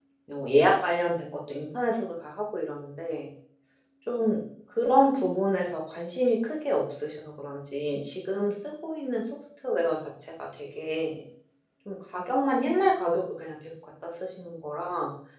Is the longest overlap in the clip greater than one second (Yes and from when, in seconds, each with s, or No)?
No